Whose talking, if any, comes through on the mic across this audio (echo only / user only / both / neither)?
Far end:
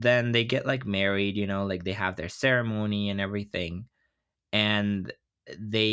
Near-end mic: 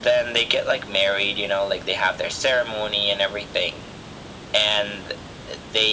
echo only